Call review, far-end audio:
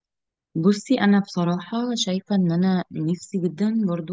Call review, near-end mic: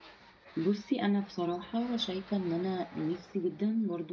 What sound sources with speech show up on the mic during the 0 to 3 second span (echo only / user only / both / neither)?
echo only